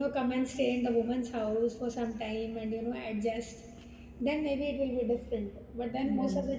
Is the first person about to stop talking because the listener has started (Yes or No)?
No